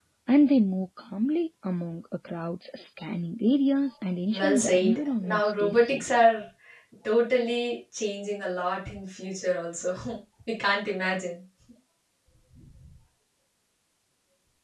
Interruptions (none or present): present